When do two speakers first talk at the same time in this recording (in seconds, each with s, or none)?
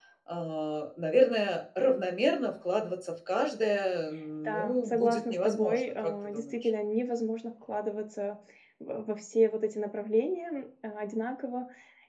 4.4 s